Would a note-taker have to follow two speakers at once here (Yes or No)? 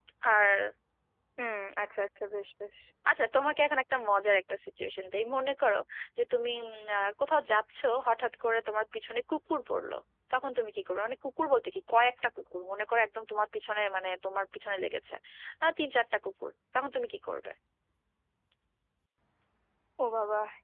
No